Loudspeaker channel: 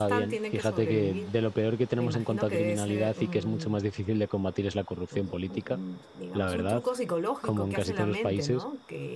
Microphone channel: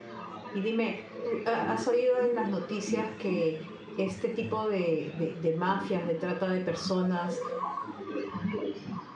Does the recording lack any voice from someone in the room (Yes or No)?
No